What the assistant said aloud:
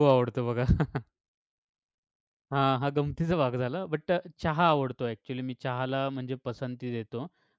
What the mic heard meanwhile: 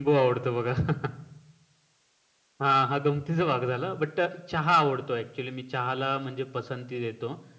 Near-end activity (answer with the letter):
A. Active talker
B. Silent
B